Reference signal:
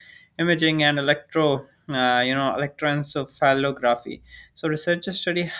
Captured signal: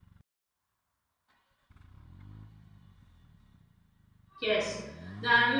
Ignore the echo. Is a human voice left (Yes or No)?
Yes